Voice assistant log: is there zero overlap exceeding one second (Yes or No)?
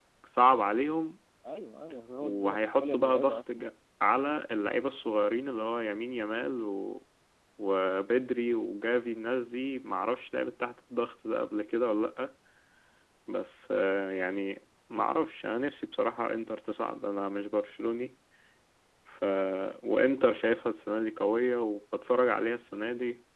No